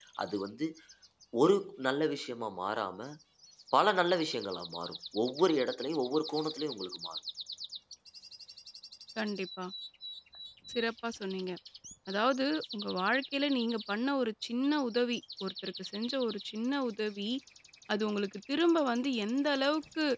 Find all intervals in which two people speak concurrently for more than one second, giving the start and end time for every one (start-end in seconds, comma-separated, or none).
none